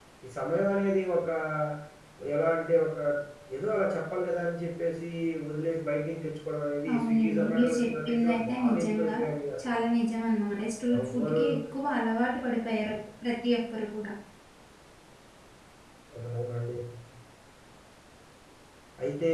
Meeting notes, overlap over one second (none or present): present